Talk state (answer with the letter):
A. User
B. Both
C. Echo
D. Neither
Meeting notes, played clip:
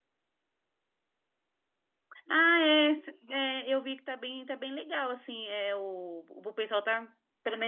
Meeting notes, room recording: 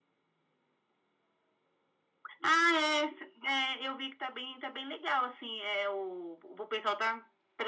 C